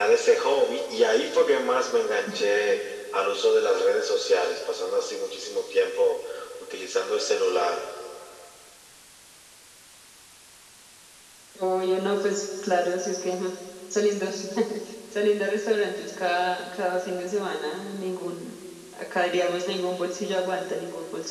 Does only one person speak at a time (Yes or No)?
Yes